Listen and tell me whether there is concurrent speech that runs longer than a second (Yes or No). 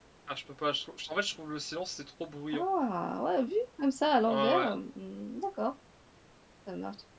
No